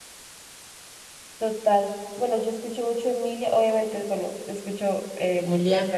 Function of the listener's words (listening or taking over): listening